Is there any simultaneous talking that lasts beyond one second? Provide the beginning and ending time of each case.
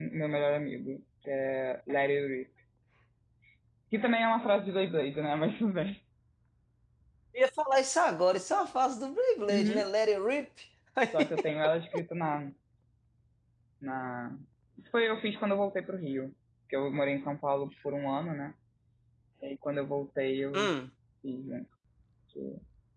none

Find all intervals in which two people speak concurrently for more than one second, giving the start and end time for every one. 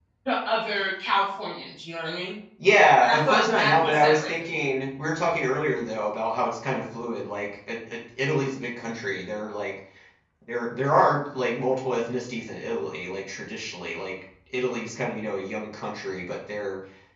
3.0-4.3

